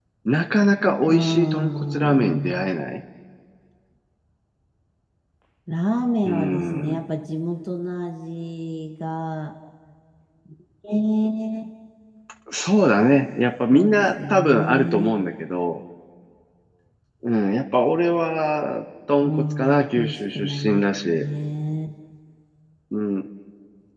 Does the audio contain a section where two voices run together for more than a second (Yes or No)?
Yes